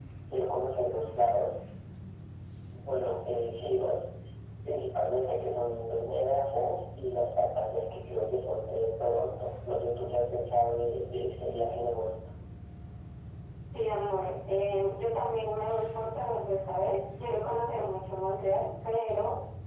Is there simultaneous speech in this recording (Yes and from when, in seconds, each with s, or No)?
No